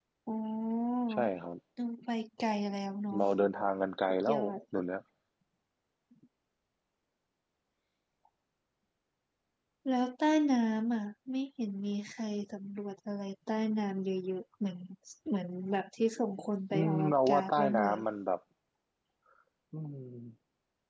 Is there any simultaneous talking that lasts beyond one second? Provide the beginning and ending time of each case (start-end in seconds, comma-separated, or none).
16.7-18.0